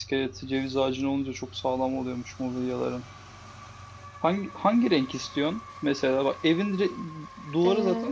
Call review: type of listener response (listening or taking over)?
listening